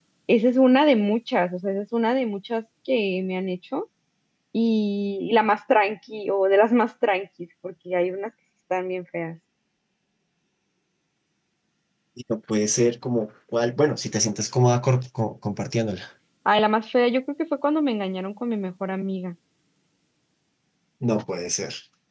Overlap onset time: none

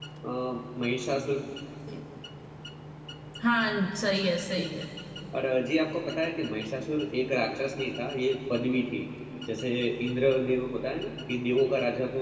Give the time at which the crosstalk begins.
none

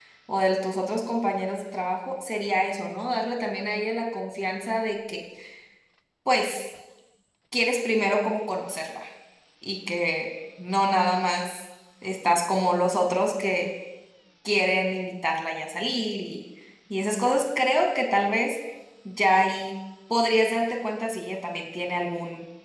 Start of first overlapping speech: none

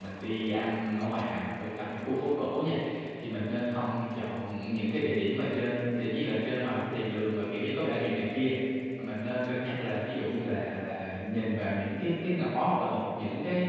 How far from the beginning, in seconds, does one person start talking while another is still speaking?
none

